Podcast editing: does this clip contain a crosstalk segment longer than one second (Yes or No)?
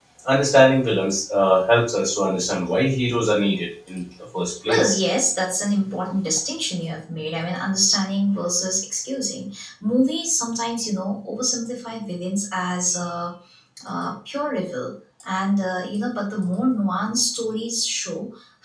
No